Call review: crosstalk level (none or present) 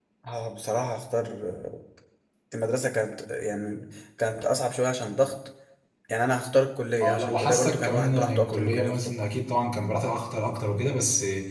present